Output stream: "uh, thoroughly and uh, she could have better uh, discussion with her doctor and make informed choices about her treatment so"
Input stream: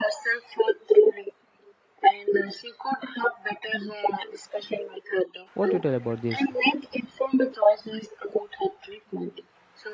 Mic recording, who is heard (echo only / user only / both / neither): both